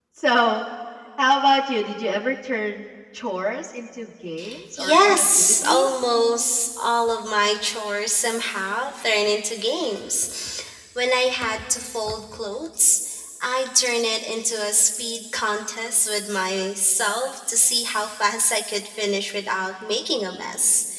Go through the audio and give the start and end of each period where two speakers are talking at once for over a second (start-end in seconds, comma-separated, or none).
4.8-6.1